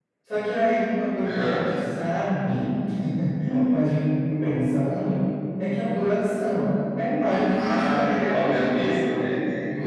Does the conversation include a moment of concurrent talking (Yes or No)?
Yes